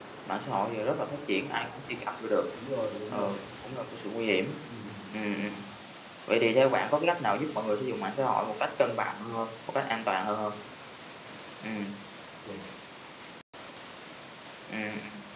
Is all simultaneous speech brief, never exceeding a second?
Yes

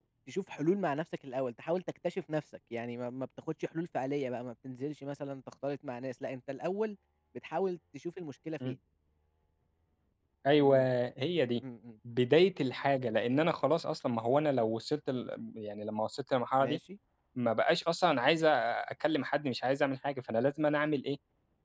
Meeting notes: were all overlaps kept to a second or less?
Yes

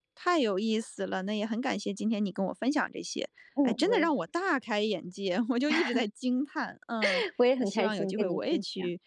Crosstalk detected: Yes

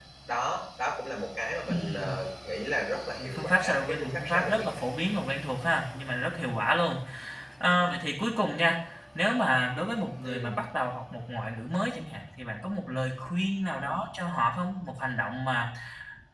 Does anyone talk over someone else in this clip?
Yes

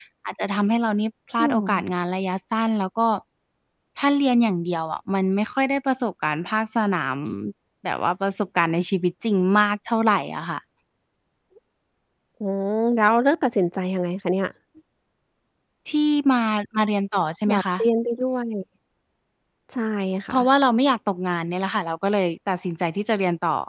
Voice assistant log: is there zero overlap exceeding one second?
Yes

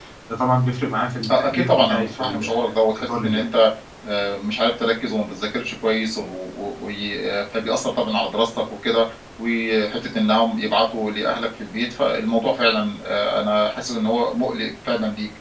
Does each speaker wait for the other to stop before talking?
No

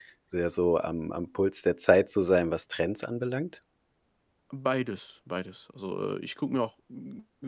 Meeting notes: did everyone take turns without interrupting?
Yes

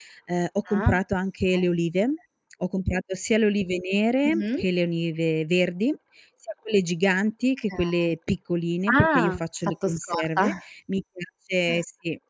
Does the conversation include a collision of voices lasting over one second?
Yes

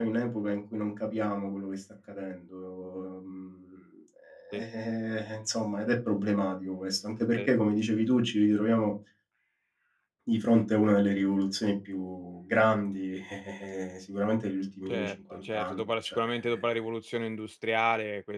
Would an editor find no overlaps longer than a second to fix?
No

